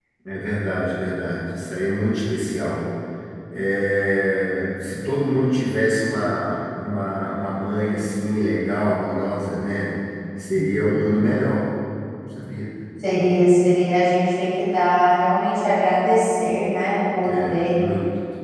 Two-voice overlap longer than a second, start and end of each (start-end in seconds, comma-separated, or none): none